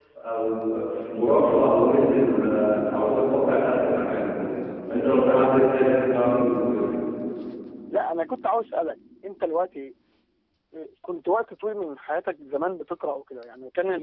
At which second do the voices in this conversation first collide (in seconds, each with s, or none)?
none